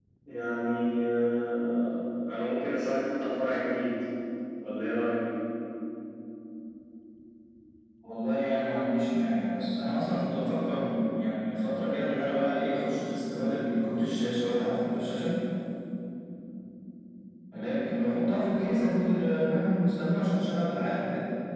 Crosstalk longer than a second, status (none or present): none